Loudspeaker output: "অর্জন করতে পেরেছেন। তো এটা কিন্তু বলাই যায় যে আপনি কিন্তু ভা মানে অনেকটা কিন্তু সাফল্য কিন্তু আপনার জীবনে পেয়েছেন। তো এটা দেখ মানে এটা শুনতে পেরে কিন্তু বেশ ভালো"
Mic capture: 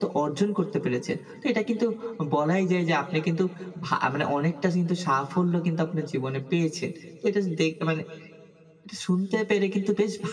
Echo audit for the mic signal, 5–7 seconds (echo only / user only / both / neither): echo only